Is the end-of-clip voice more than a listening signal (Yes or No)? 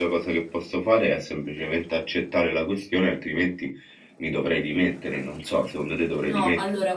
Yes